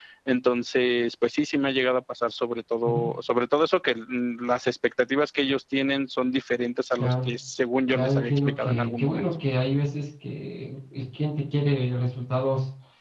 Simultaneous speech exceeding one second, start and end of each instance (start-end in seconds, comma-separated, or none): 7.9-9.2